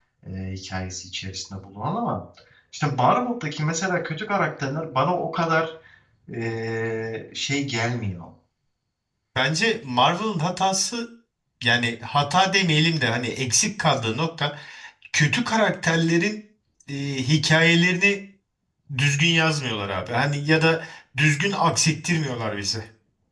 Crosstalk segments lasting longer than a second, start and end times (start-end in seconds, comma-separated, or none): none